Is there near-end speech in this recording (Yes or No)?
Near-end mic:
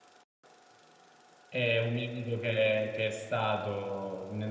Yes